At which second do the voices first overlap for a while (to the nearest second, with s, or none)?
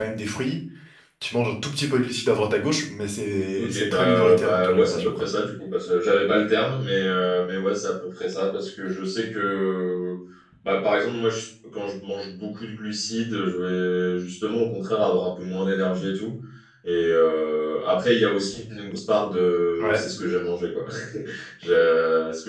4 s